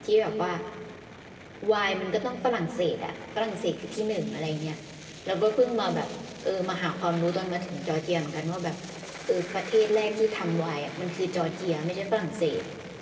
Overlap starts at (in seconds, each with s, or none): none